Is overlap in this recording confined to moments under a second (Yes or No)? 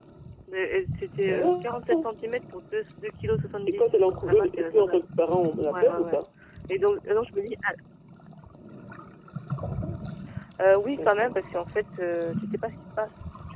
No